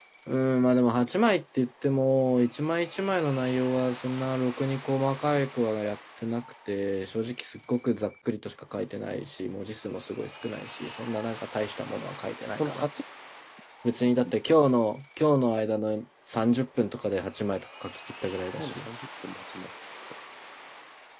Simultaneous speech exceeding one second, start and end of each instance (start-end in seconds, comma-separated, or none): none